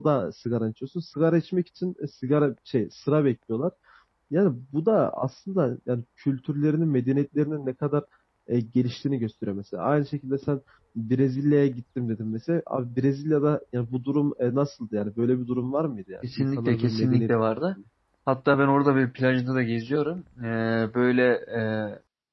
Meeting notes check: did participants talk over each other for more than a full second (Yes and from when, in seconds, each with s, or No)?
Yes, from 16.2 s